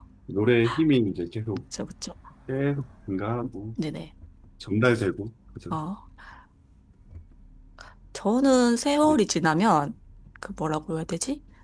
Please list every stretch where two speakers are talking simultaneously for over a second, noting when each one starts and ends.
none

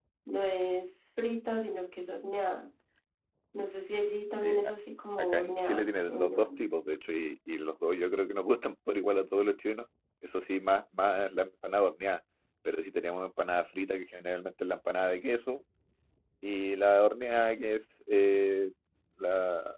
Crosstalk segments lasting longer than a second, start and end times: 5.2-6.6

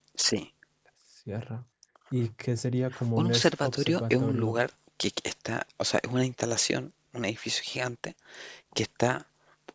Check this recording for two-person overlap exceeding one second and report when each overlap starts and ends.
3.2-4.6

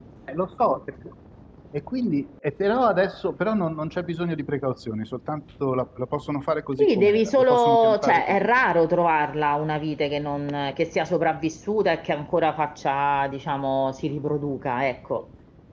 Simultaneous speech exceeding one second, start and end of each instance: 6.8-8.7

